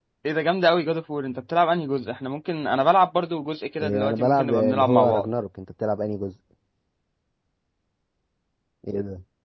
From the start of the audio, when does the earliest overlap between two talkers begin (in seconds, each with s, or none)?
3.8 s